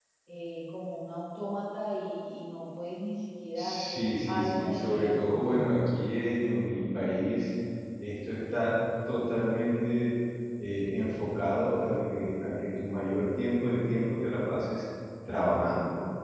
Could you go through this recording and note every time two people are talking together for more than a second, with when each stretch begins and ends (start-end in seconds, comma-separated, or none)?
3.5-5.7